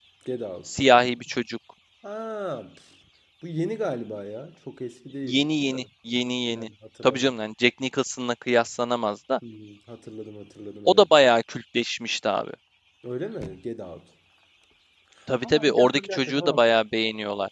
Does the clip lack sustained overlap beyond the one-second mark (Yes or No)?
No